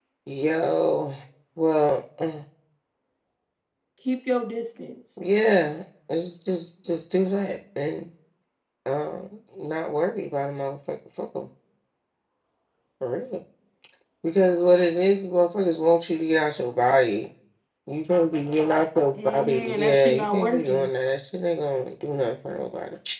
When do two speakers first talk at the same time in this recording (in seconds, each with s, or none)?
19.2 s